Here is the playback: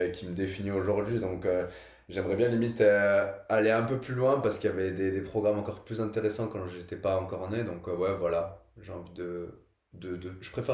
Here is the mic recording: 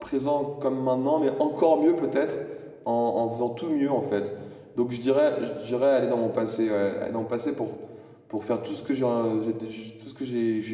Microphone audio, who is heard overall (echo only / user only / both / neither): user only